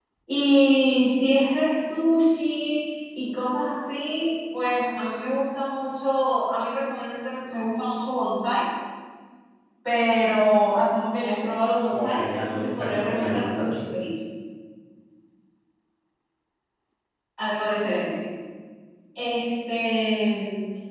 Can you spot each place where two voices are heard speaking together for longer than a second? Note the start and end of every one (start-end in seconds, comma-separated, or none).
11.9-13.7